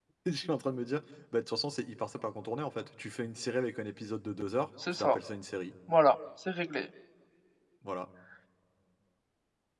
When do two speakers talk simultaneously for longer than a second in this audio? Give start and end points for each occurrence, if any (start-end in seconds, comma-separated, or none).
none